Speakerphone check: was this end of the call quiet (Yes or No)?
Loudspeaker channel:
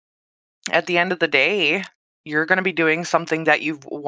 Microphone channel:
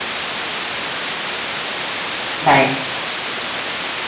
No